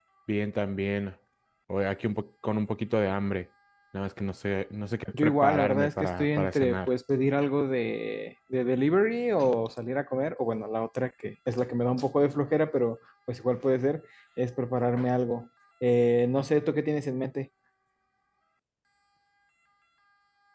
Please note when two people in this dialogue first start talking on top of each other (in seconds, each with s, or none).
5.1 s